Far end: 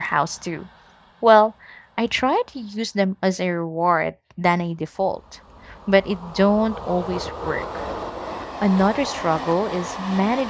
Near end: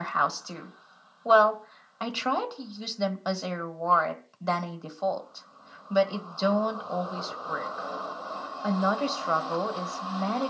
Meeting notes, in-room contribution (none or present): none